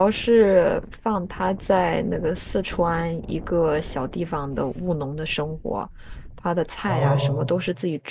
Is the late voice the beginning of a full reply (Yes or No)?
No